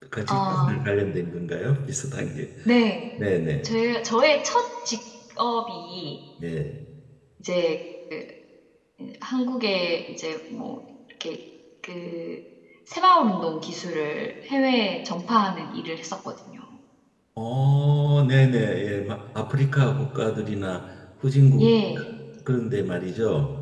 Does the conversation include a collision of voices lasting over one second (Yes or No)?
No